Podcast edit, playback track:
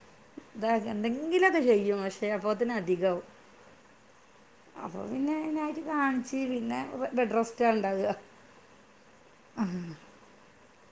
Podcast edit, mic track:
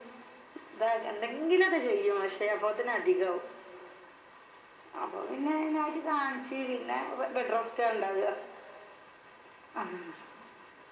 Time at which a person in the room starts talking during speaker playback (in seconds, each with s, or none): none